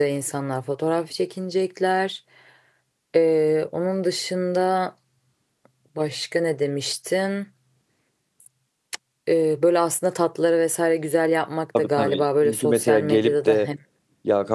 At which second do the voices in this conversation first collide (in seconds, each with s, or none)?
11.8 s